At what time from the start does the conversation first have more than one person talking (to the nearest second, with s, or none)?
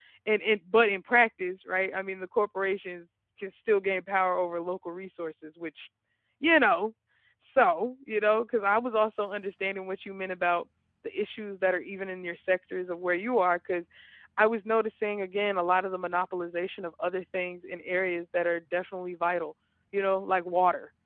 none